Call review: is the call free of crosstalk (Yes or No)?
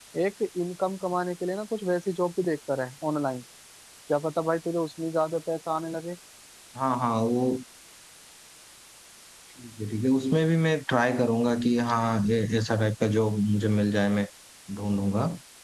Yes